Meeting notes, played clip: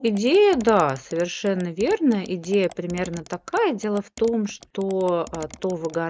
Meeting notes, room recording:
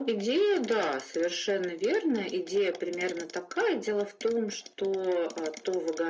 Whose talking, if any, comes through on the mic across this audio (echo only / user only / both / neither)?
echo only